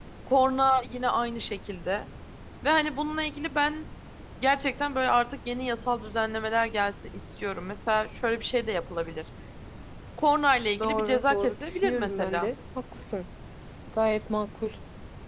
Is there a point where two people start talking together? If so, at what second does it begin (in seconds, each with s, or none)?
10.8 s